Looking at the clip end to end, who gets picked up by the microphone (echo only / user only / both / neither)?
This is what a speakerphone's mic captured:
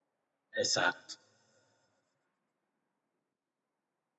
user only